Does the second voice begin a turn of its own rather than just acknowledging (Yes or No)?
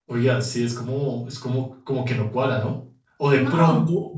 No